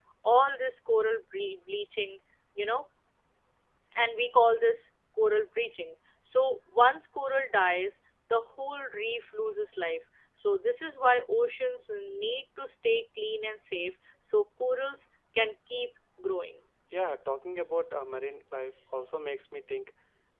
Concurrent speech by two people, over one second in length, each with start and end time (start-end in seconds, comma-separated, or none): none